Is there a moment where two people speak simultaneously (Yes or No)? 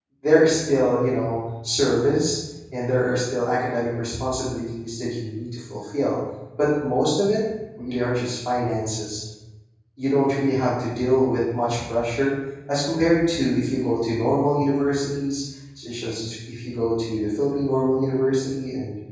No